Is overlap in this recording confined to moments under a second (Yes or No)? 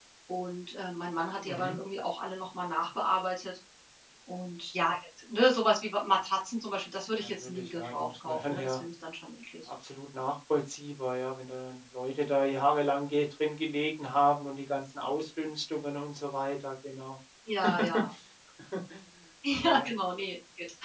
No